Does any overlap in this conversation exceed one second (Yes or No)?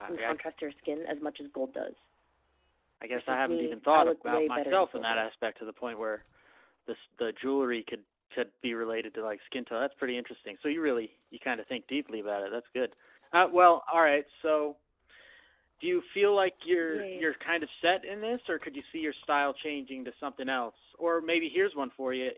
Yes